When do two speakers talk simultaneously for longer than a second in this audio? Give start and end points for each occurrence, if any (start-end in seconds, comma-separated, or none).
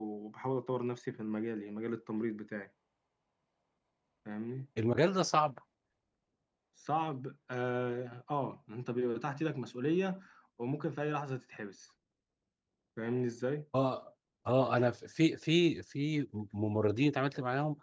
none